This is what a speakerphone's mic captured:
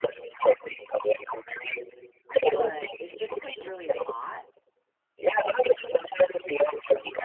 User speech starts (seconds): 2.5 s

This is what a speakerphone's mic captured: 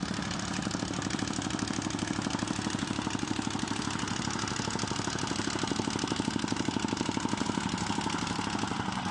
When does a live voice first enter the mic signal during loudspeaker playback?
none

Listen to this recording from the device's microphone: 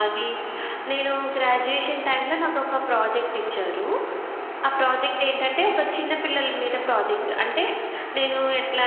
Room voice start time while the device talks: none

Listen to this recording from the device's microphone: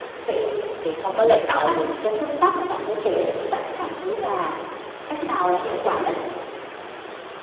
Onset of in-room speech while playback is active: 0.8 s

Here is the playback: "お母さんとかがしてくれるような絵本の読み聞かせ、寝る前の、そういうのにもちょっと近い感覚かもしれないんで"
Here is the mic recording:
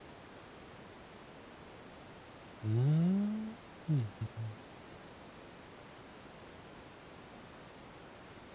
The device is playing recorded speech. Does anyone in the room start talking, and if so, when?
2.6 s

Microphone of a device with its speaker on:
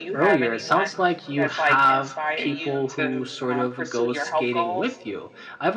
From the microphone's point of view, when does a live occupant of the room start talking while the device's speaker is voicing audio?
none

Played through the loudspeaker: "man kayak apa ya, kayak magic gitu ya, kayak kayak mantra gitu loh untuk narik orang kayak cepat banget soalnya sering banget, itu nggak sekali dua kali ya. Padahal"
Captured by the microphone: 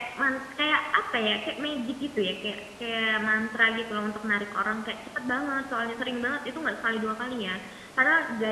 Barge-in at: none

